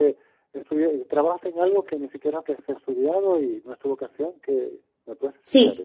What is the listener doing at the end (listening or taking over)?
taking over